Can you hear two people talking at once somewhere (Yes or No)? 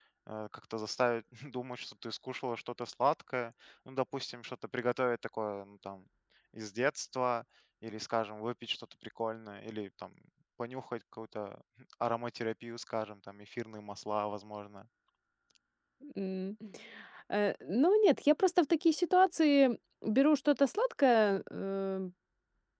No